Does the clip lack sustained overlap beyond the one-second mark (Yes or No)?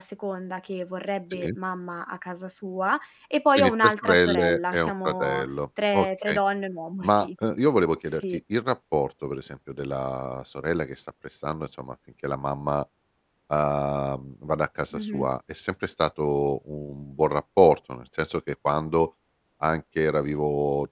No